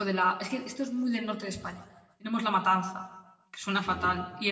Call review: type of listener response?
listening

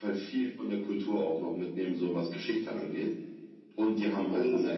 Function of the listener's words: listening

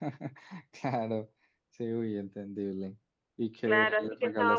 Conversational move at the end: taking over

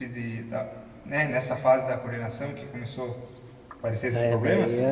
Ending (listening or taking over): taking over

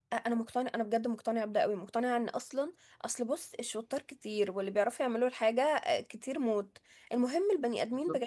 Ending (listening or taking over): listening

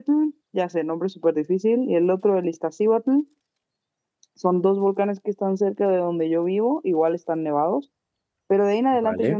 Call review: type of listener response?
listening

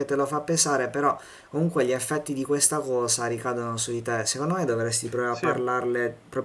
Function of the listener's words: listening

